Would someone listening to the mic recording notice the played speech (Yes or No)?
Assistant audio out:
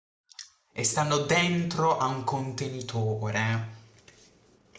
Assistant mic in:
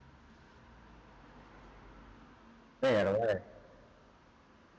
No